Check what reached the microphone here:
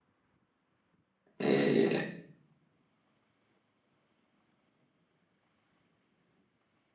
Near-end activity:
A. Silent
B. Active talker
B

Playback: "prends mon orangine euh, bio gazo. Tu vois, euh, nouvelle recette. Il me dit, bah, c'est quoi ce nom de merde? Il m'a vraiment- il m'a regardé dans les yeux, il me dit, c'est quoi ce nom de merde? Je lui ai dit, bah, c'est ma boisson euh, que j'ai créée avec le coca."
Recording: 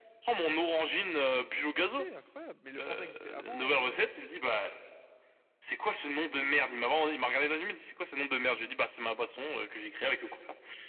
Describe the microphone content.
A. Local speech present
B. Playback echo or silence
A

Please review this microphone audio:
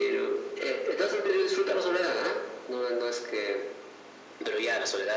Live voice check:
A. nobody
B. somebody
A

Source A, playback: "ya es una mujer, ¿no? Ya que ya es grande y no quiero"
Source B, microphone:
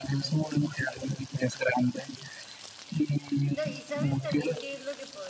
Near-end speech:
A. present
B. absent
A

